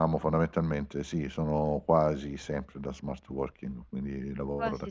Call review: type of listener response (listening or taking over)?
taking over